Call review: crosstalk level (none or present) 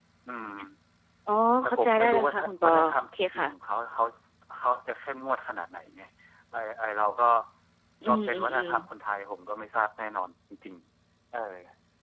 present